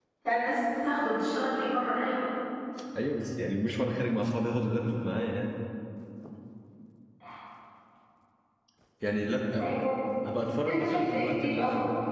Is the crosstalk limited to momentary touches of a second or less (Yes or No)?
No